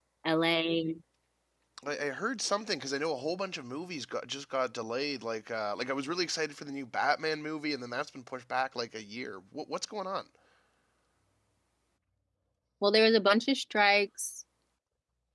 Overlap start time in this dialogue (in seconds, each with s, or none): none